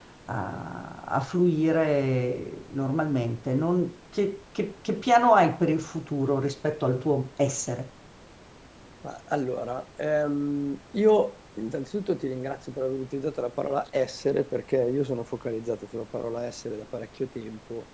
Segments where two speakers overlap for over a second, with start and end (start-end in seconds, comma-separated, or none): none